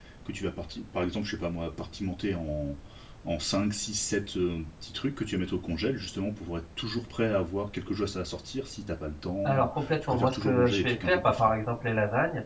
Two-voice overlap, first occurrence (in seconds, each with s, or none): 9.4 s